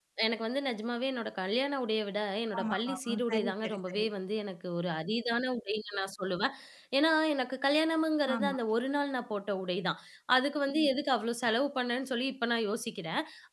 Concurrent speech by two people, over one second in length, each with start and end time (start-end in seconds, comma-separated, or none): 2.6-4.0